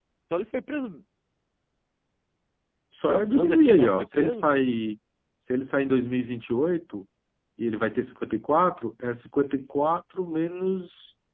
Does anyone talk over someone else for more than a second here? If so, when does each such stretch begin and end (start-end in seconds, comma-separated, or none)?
3.1-4.5